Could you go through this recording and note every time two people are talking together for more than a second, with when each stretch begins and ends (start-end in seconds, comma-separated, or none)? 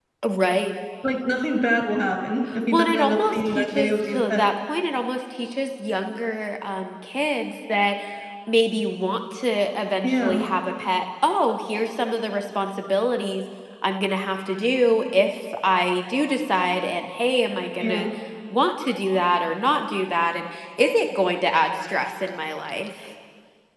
2.7-4.5